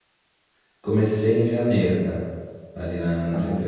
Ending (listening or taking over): taking over